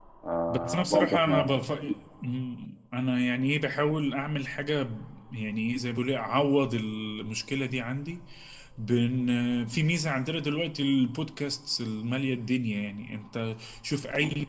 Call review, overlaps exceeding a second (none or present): present